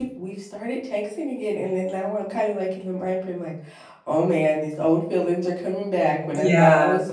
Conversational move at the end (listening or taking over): listening